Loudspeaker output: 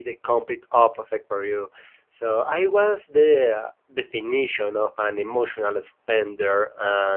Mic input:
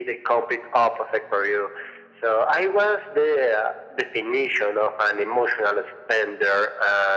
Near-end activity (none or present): none